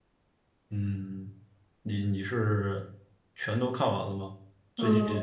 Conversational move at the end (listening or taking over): taking over